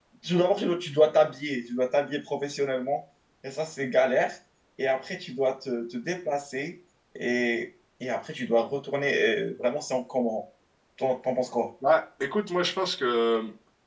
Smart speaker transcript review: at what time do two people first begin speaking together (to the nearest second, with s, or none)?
none